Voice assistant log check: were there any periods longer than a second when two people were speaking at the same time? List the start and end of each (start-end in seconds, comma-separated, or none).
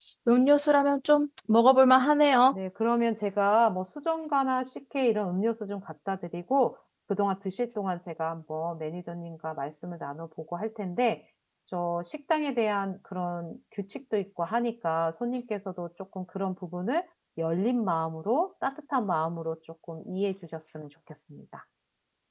none